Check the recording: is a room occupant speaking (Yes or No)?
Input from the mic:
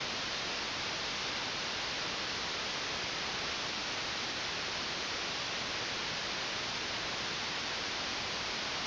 No